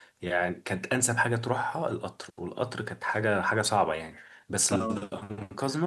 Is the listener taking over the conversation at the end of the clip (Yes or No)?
No